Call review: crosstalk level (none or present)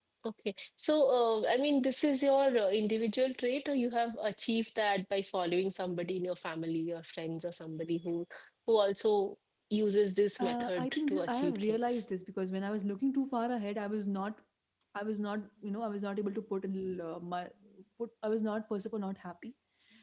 present